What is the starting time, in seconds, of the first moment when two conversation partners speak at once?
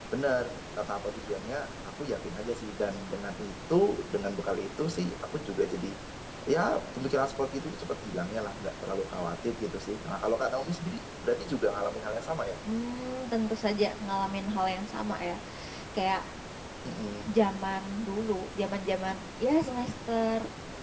none

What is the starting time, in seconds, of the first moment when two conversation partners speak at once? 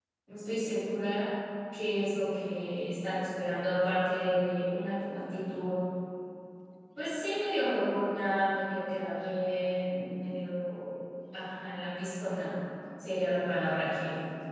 none

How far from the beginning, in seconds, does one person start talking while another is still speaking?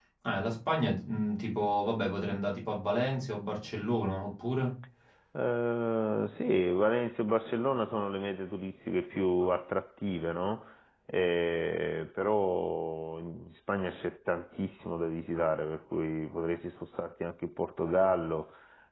none

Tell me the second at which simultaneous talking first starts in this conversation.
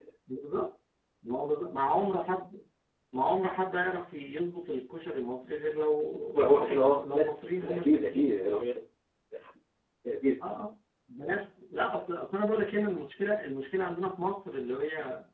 6.3 s

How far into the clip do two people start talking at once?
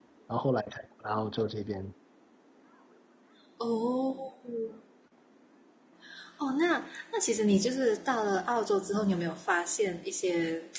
none

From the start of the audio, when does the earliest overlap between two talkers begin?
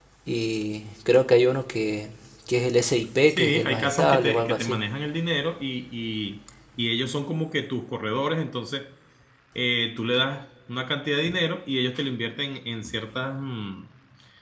3.3 s

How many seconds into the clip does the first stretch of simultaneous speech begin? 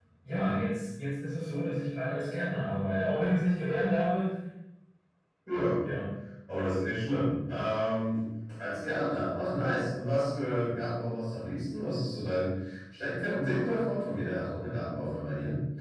none

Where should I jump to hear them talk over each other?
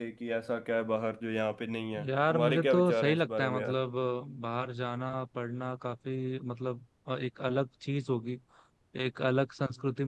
1.9 s

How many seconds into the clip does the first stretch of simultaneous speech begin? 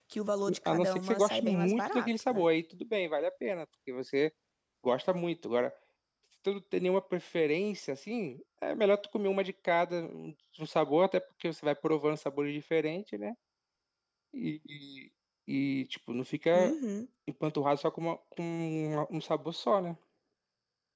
0.7 s

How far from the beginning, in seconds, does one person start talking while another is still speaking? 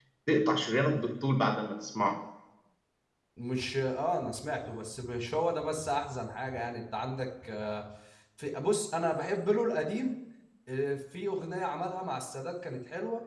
none

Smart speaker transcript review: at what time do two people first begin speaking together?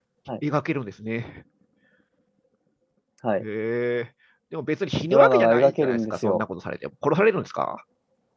5.1 s

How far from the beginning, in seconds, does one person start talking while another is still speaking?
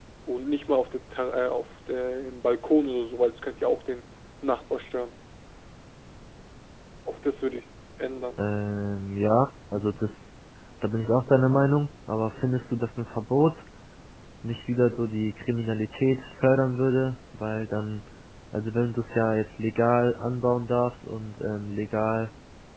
none

